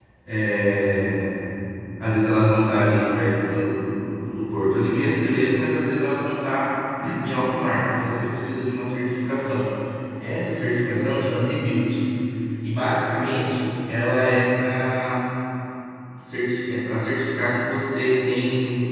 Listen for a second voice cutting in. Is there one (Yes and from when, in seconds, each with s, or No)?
No